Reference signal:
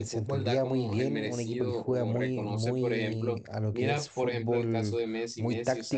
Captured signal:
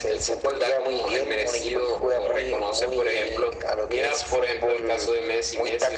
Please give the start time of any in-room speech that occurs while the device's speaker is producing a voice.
none

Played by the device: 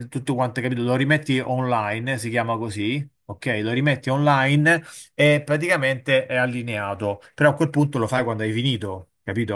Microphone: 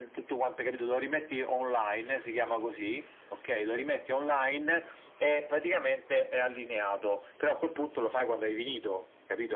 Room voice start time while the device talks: none

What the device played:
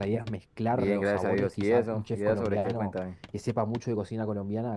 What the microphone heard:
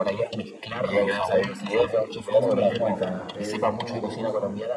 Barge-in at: 2.3 s

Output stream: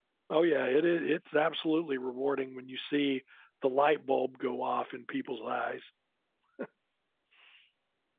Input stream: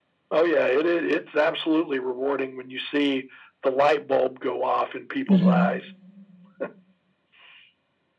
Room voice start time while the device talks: 5.3 s

